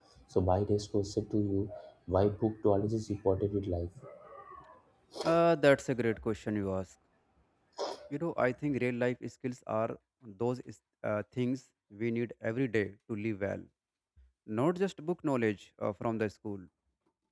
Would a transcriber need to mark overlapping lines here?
No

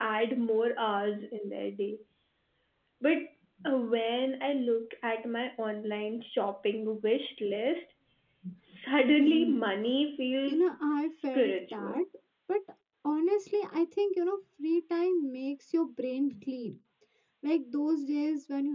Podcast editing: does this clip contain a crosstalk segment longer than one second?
Yes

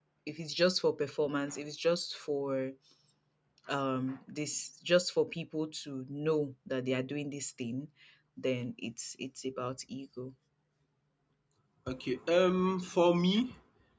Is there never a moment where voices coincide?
Yes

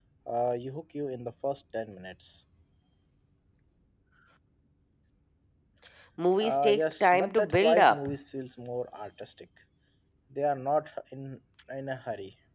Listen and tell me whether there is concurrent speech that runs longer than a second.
Yes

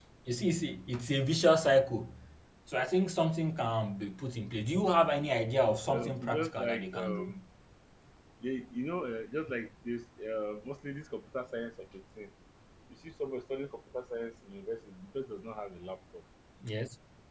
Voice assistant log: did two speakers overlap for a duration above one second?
Yes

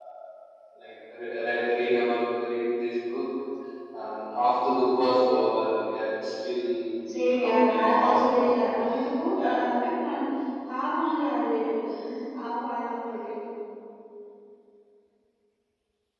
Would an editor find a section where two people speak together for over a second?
Yes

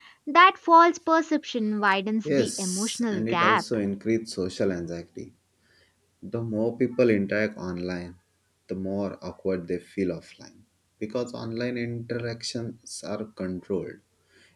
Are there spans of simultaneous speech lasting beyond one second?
Yes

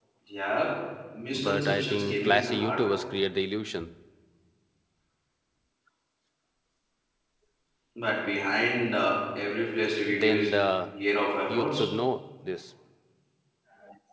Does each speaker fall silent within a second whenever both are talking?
No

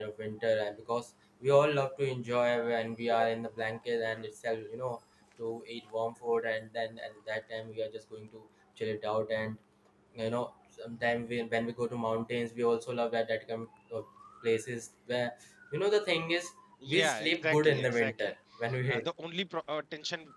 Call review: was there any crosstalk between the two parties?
Yes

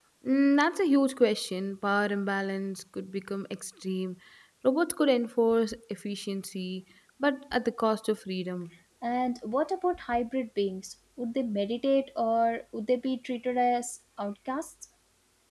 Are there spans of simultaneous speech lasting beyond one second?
No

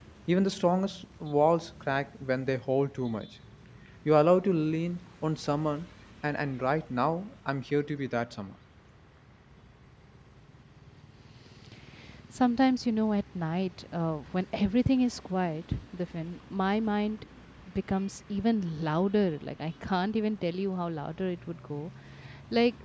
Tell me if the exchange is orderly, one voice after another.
Yes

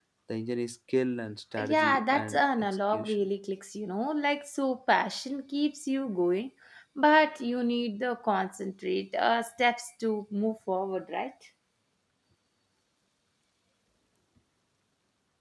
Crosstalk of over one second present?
Yes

